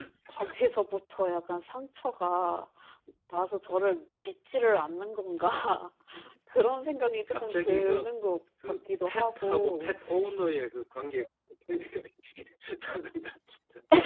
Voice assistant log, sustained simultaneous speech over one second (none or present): present